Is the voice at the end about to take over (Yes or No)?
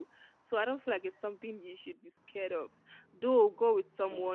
No